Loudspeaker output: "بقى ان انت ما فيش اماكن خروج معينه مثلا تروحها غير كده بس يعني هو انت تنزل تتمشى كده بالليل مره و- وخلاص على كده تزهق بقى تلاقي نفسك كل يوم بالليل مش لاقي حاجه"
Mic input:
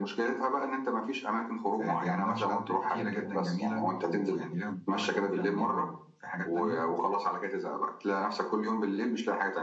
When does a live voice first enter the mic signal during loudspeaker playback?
1.8 s

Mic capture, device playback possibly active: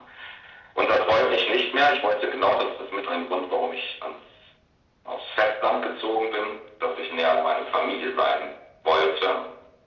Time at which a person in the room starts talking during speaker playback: none

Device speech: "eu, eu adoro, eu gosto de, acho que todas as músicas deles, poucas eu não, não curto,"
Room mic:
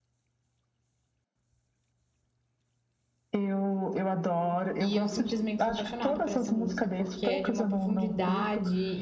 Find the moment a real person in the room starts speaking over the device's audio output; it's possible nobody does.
4.8 s

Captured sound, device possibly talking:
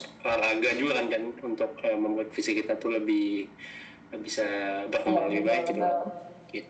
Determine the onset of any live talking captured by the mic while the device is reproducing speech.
5.1 s

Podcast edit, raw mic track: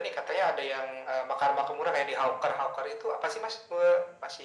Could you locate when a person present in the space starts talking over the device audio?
none

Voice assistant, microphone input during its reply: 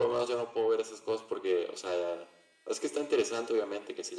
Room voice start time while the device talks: none

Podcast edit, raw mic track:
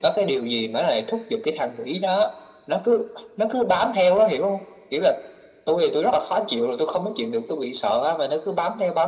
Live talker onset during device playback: none

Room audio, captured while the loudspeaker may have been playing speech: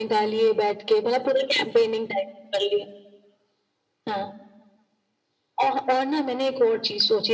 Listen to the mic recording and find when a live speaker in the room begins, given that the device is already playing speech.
none

